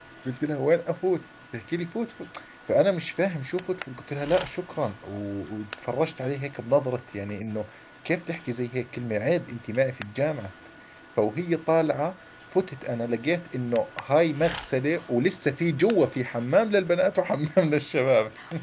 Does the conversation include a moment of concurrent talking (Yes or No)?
No